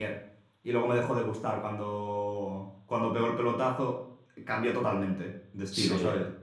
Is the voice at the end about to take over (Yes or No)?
Yes